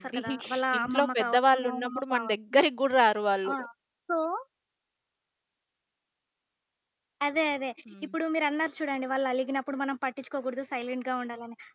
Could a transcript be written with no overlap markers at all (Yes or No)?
No